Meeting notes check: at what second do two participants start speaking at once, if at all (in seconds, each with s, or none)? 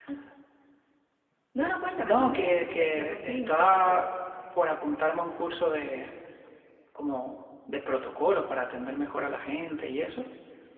2.0 s